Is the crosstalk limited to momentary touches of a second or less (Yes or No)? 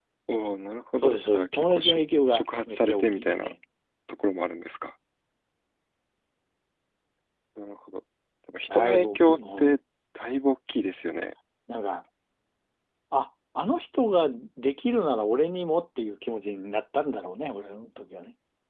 No